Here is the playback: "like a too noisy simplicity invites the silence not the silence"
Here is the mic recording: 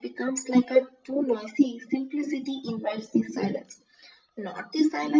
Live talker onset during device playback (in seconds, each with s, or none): none